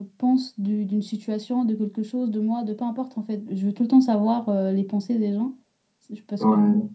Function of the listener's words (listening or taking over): listening